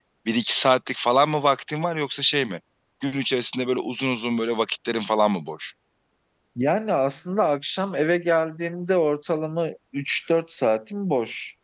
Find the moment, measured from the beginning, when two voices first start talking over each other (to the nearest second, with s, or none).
none